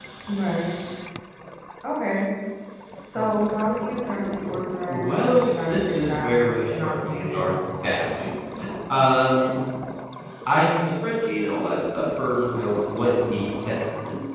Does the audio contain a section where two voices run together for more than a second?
Yes, from 4.9 s

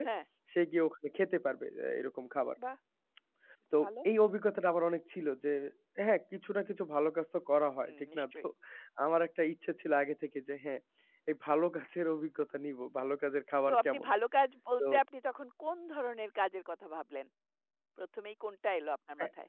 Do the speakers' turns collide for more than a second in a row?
No

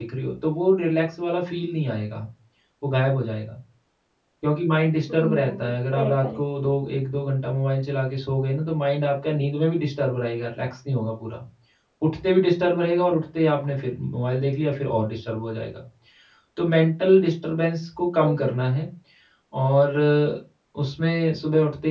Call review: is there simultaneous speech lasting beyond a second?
Yes, from 5.1 s

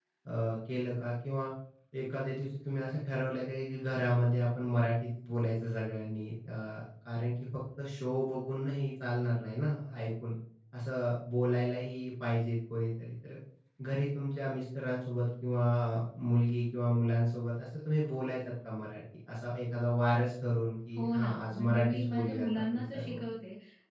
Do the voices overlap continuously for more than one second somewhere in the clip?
Yes, from 21.0 s

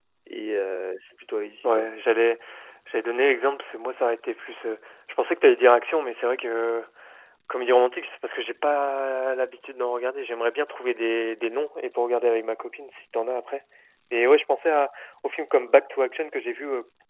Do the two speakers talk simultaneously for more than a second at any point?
No

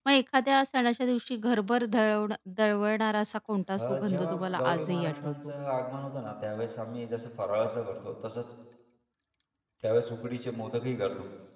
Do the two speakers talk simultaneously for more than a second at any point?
Yes, from 3.8 s

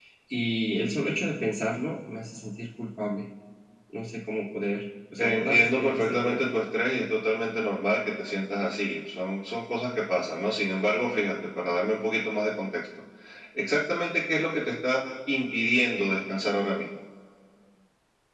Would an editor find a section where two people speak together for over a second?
Yes, from 5.2 s

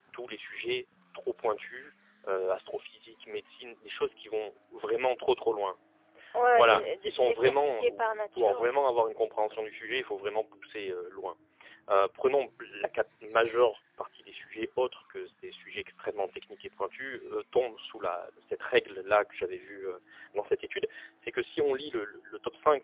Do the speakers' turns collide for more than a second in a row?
Yes, from 6.5 s

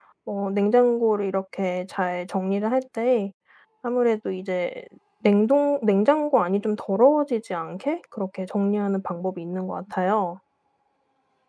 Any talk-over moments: No

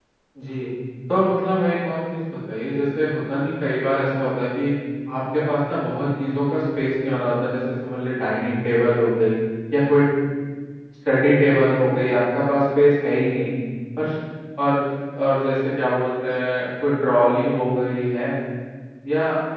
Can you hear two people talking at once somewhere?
No

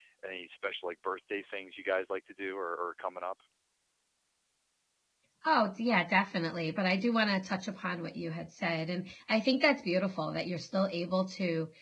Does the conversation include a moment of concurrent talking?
No

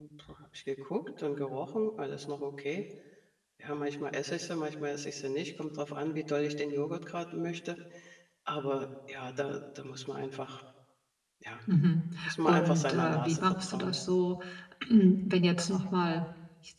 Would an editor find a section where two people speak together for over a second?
Yes, from 12.4 s

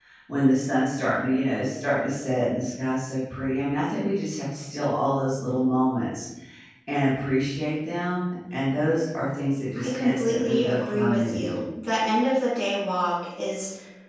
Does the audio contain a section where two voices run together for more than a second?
Yes, from 9.8 s

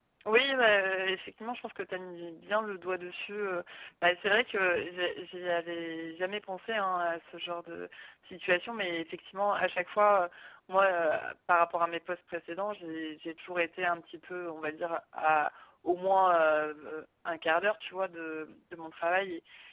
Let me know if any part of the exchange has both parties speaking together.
No

